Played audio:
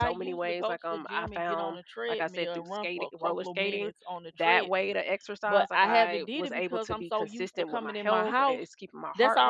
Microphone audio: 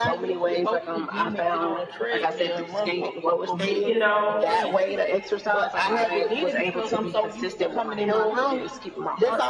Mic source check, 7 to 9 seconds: echo only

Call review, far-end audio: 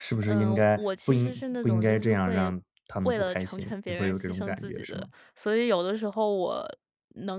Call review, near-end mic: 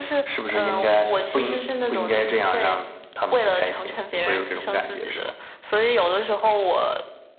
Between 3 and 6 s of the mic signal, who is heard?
echo only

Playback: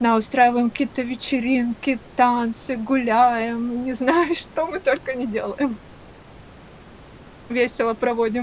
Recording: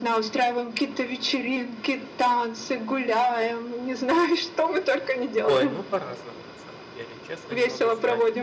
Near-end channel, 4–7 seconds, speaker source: both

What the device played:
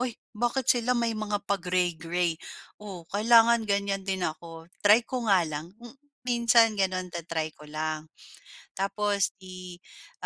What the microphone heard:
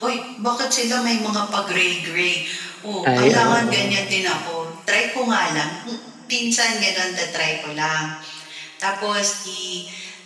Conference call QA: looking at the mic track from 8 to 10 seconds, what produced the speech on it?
echo only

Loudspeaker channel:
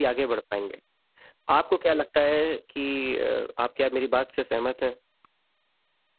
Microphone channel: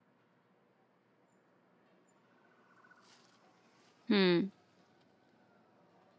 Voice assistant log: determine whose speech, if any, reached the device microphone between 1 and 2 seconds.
neither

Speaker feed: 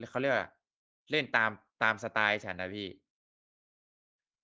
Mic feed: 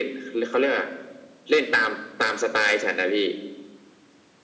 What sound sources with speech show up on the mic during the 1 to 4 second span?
echo only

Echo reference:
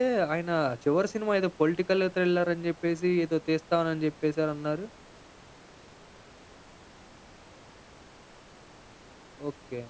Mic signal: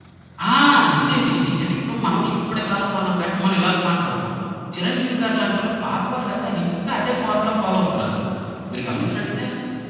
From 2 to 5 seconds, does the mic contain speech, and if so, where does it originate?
user only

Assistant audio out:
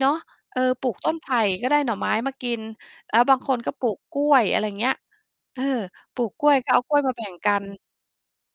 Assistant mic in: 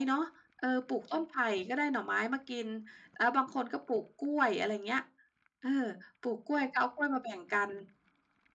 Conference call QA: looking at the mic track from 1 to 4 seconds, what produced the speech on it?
echo only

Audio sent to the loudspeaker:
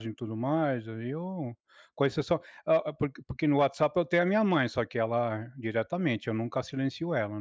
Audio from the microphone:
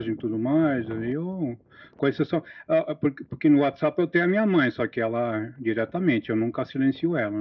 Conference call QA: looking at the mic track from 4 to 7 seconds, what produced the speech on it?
echo only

